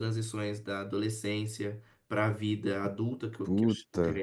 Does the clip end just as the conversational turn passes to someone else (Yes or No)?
No